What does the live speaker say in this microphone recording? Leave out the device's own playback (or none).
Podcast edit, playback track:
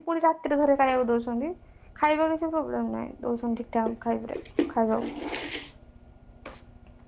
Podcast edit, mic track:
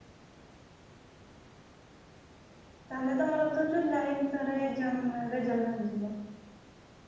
ତାହେଲେ ତମର ତ ଜୁଲାଇ ଭିତରେ ଏଗ୍ଜାମ ରେଲ୍ଟ ବାହାରିଯିବ।